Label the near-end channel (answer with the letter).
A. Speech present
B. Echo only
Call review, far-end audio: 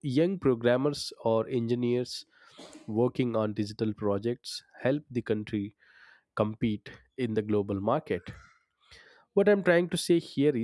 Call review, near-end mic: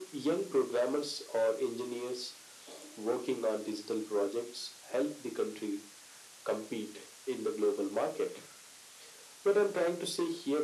B